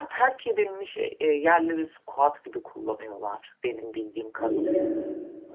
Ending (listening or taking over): taking over